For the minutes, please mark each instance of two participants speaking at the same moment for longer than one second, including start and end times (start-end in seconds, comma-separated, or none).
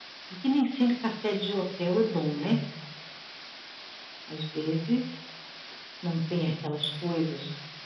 none